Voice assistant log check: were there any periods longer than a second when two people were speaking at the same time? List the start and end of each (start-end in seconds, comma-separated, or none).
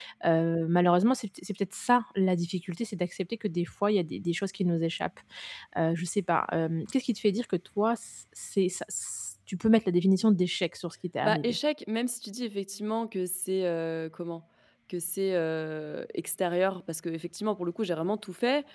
none